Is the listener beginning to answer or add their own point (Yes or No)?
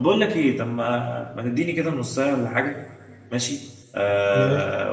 No